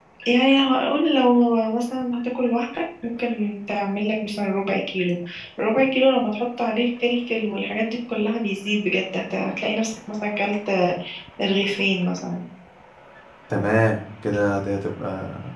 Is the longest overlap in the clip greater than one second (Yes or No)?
No